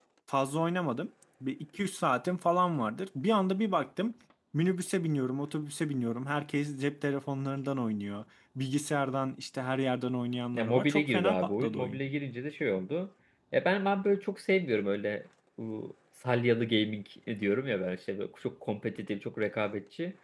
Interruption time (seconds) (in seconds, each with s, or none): 10.5 s